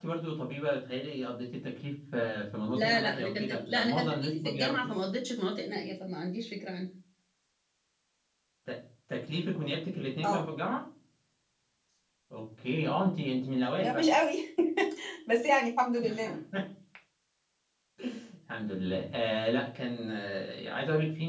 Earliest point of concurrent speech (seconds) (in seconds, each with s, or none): 2.7 s